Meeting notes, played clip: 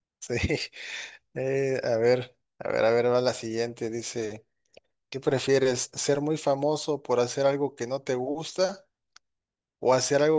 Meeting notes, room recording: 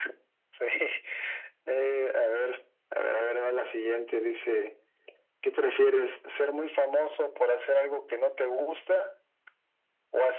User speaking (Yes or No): No